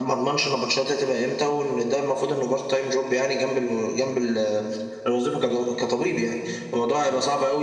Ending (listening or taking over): listening